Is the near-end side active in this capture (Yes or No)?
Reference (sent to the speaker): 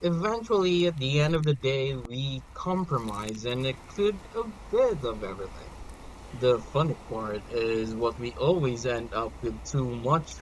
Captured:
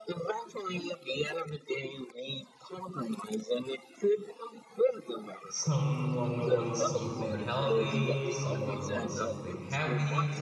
Yes